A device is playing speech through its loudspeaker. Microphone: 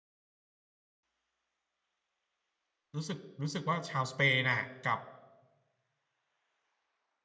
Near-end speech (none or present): present